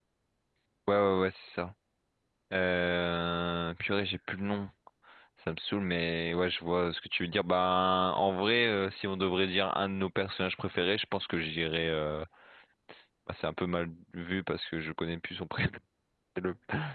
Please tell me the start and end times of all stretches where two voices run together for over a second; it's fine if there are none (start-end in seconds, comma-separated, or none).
none